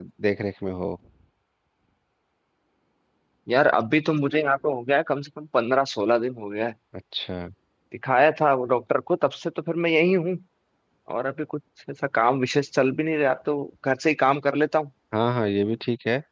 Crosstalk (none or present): none